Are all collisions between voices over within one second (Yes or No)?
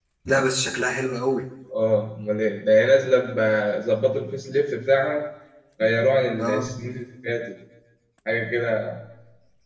Yes